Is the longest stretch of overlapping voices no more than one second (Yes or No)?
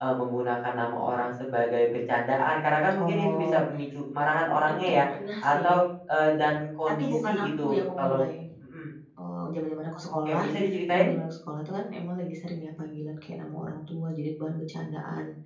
No